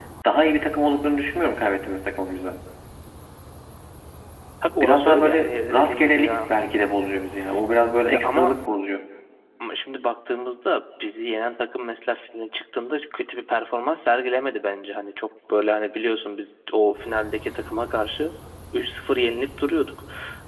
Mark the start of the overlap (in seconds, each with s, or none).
4.8 s